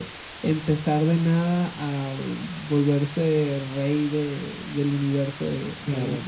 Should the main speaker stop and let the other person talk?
No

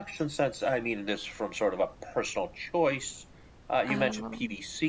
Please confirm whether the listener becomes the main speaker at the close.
No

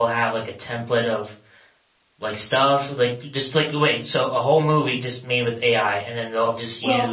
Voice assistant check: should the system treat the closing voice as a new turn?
Yes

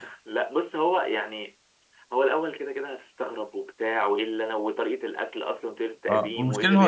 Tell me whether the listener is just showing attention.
No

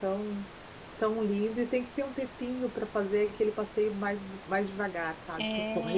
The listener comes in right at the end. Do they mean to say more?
No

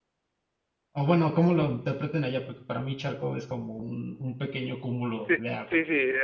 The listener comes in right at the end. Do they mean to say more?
Yes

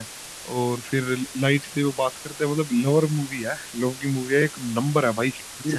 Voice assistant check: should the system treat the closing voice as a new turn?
No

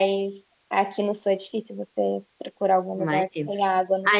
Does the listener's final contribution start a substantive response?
Yes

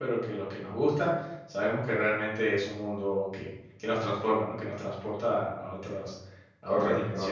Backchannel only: No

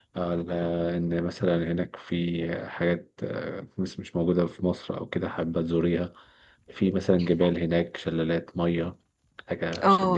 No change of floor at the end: No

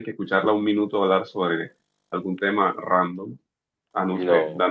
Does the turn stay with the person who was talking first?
Yes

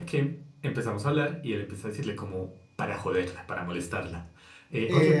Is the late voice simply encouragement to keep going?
No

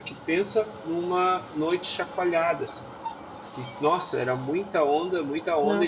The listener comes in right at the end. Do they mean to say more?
No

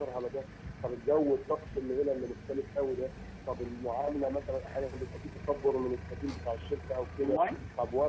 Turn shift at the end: No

